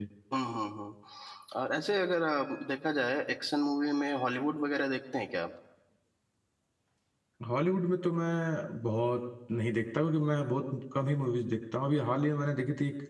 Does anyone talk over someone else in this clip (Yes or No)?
No